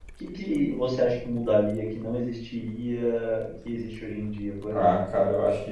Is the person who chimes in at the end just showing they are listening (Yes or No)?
No